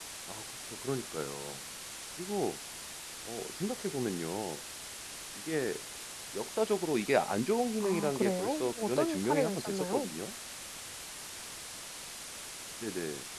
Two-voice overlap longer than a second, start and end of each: 7.8-10.1

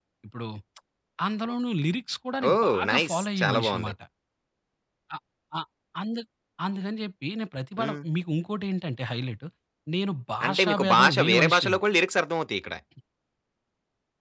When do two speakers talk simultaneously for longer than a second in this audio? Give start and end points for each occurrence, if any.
2.5-3.9, 10.4-11.8

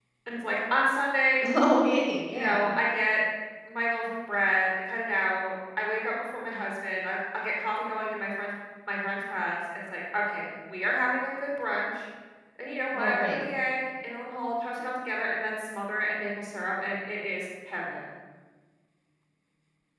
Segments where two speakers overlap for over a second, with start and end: none

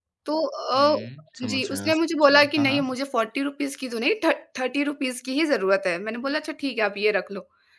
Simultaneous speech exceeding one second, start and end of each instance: 1.5-2.8

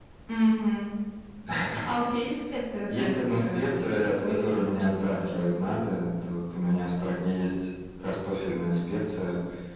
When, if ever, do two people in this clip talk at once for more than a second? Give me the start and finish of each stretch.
2.9-5.5

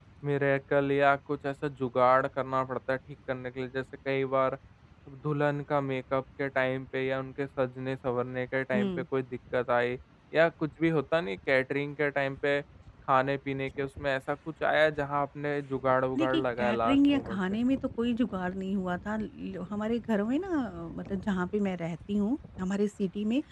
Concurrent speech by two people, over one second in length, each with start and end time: 16.2-17.4

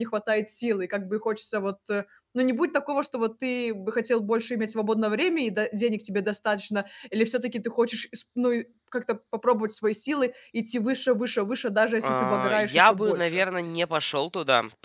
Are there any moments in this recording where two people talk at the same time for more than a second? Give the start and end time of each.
12.0-13.4

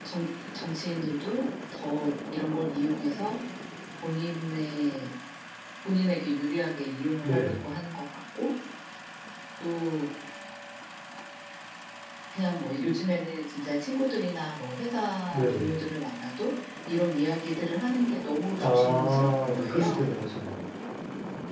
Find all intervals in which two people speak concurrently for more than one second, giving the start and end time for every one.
18.6-20.1

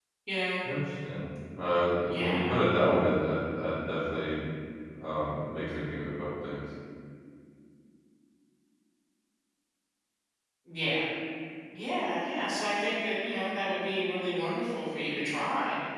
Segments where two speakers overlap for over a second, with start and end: none

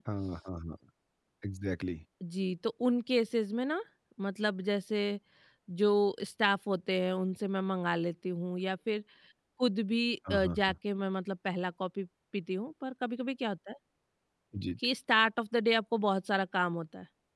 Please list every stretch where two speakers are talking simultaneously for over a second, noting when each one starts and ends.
none

